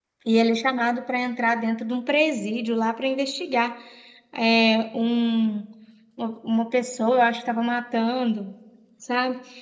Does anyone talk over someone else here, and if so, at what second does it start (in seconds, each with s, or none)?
none